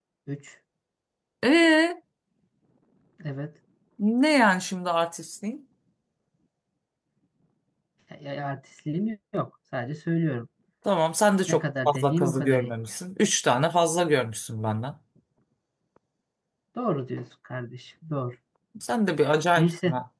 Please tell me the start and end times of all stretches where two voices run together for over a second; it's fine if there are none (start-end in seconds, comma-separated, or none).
11.5-12.7